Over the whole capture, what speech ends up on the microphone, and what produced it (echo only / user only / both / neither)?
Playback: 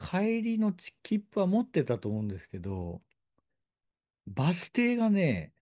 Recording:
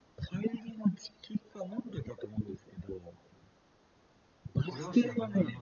both